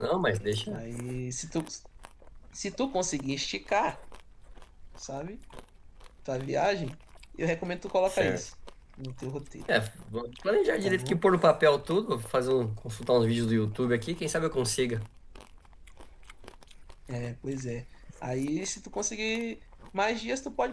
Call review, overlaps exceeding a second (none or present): none